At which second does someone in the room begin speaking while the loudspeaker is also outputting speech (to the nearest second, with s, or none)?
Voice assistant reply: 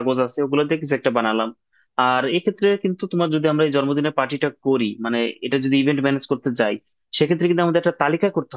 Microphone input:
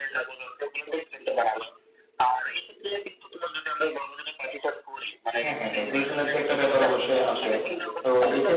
5 s